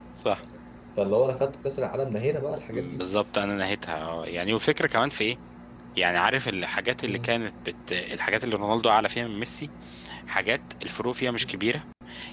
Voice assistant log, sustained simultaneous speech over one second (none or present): none